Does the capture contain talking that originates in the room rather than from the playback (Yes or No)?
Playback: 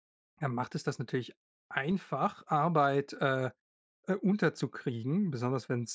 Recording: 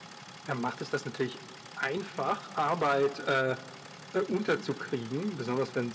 No